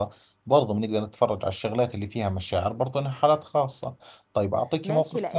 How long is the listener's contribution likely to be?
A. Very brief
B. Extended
B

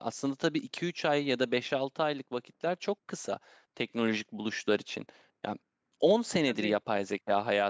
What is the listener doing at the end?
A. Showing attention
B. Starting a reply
A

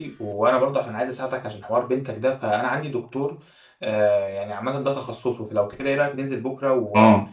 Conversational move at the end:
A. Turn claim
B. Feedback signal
A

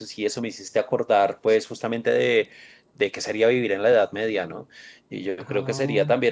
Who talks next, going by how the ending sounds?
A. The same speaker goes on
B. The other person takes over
A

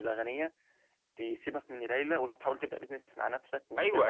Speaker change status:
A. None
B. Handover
B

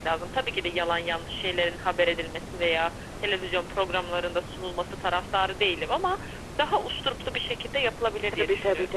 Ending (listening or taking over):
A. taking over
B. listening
A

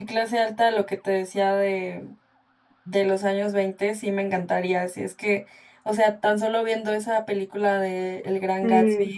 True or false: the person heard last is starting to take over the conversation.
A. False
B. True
A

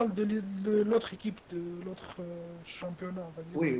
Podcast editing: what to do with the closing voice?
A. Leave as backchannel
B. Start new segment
B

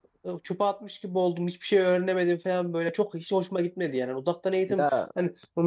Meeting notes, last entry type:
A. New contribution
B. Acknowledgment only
B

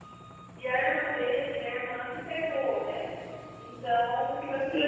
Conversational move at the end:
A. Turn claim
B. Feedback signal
B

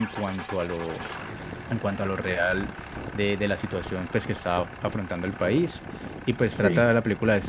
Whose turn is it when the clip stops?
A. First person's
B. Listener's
A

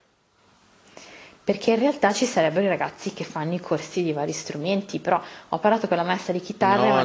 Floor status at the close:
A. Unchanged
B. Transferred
B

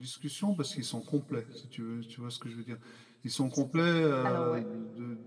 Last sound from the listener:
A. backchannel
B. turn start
A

